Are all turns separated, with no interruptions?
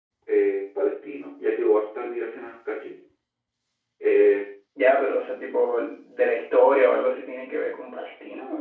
Yes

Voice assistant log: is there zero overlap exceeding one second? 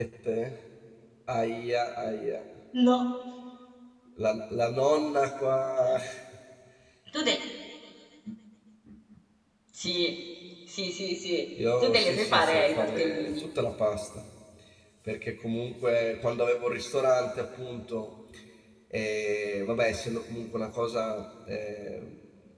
No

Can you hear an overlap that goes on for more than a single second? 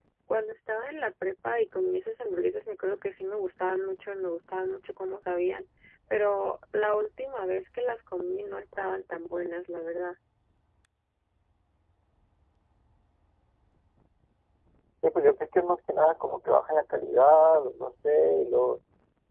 No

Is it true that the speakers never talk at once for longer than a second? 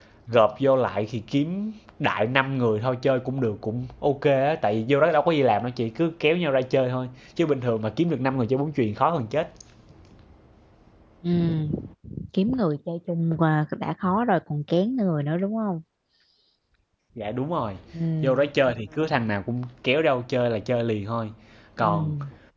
Yes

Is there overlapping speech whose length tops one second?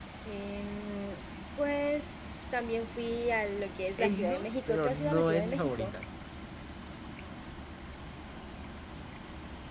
Yes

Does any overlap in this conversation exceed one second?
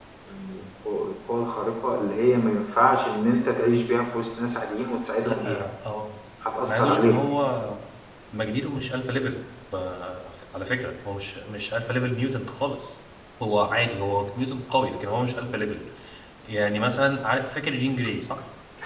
No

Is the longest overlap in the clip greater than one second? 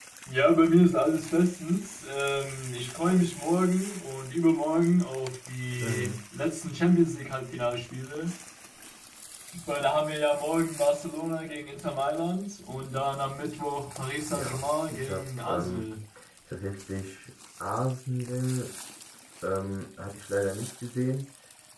Yes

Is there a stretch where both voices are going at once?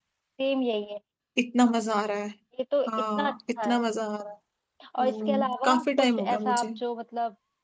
Yes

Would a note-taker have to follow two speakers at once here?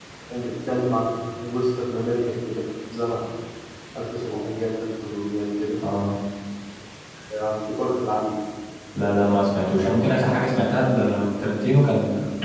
No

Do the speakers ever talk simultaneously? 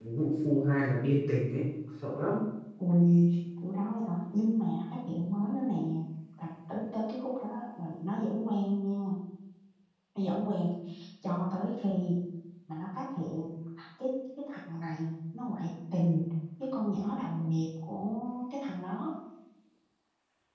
No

